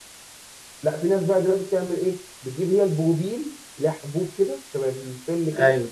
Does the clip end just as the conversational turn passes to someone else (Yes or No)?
Yes